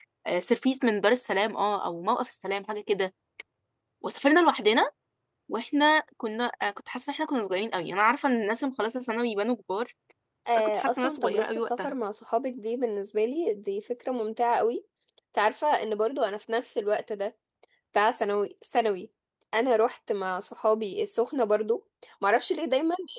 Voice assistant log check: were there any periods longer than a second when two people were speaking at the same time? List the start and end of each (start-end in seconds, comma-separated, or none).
10.5-11.9